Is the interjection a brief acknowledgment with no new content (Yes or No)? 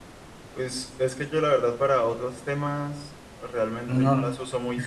Yes